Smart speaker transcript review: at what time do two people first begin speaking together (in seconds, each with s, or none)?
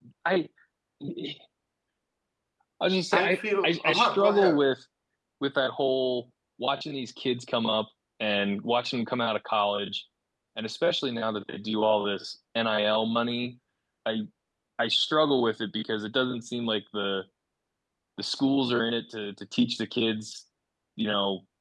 3.1 s